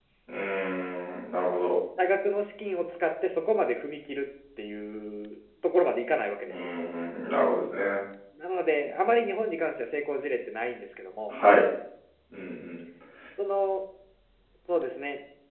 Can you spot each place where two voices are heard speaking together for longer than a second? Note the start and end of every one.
none

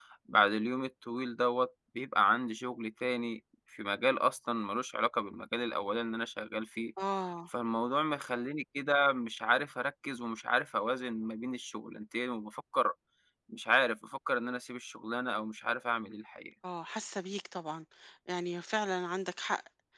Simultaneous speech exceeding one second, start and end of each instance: none

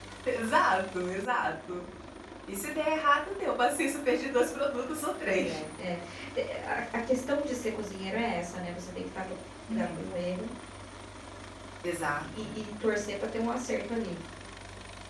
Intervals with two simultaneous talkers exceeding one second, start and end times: none

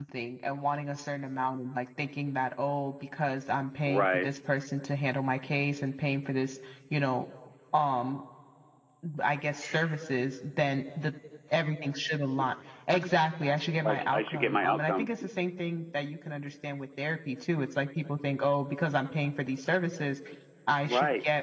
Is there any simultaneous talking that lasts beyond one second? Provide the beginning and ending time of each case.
13.8-15.1

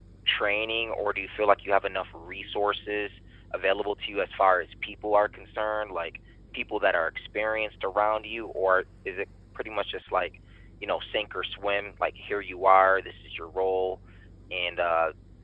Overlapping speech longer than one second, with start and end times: none

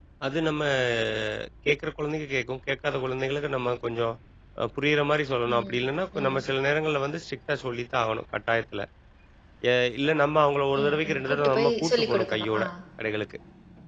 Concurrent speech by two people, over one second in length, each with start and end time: 10.8-12.4

